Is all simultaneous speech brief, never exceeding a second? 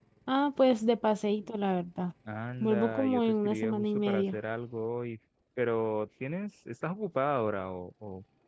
No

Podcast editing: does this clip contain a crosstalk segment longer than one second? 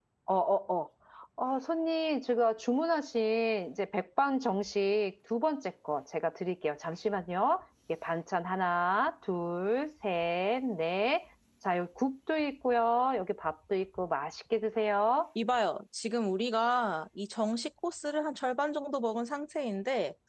No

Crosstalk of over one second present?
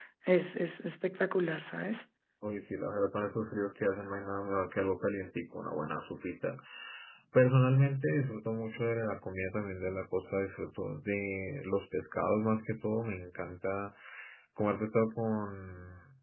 No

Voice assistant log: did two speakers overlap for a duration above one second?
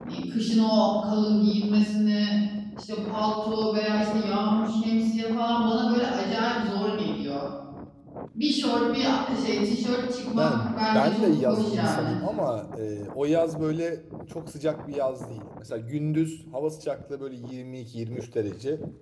Yes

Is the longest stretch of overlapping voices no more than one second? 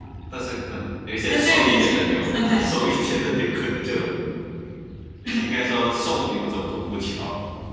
No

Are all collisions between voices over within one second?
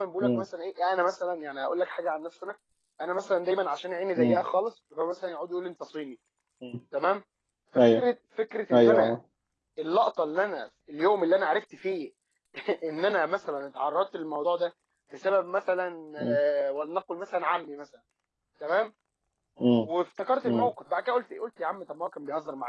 Yes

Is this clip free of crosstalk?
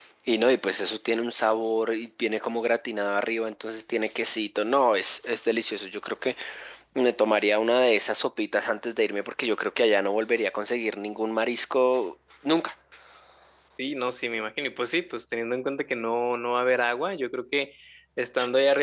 Yes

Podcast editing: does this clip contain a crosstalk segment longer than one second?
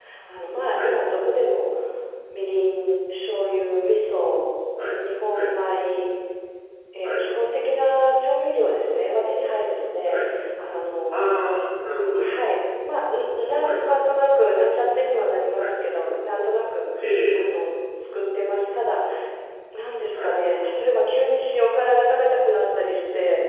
No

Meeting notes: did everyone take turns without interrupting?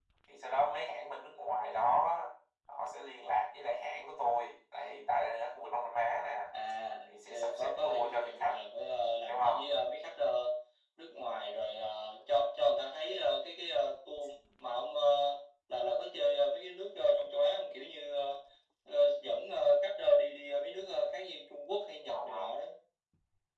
No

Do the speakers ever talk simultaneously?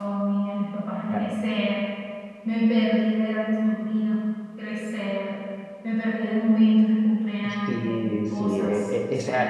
Yes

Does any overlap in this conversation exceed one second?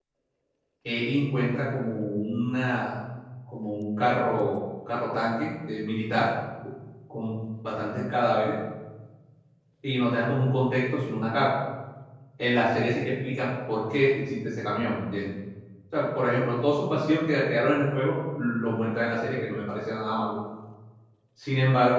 No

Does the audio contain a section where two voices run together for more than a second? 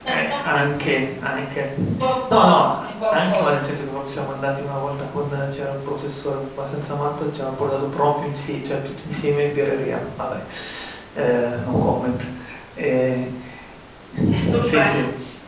Yes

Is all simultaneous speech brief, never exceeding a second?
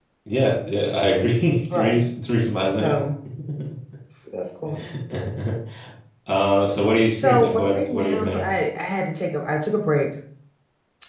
No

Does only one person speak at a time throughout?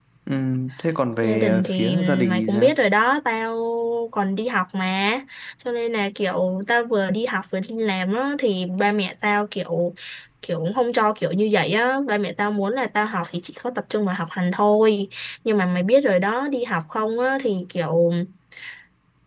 No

